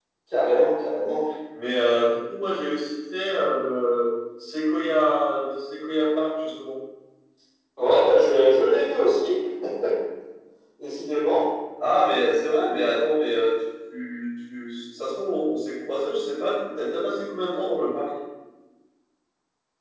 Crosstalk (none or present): none